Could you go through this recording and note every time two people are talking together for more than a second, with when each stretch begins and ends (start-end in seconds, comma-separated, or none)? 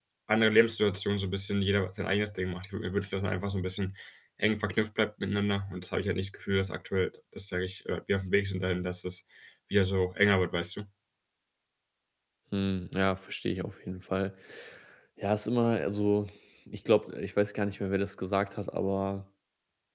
none